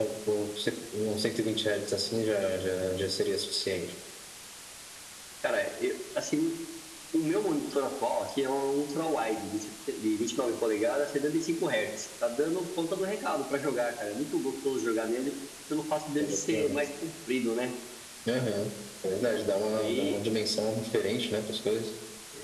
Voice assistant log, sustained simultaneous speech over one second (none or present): none